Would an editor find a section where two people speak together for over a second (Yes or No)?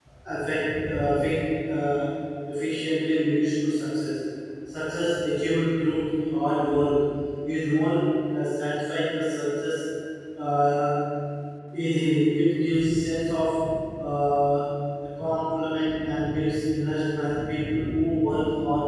No